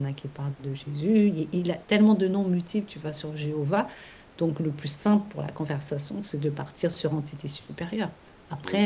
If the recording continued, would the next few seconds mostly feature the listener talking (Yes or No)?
Yes